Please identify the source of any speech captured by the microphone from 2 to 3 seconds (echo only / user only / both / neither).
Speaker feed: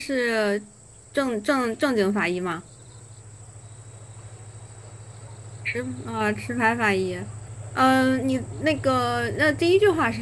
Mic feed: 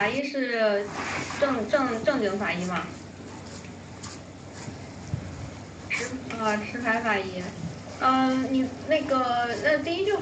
echo only